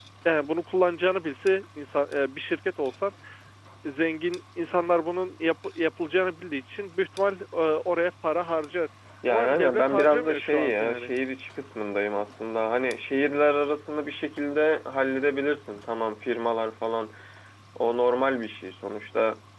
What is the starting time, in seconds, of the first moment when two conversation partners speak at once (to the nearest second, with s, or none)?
9 s